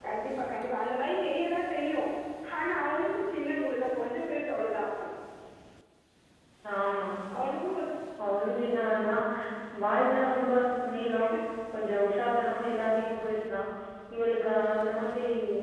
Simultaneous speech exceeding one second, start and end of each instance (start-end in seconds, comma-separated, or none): none